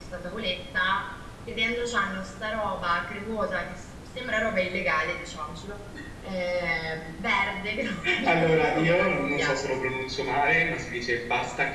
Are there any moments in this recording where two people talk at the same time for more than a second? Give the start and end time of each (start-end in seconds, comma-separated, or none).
8.2-9.6